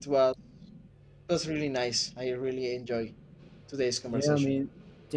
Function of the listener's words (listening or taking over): taking over